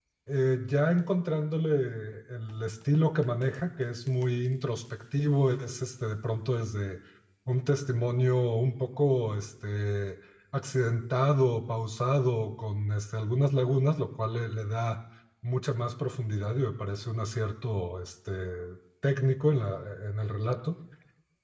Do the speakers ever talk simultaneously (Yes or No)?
No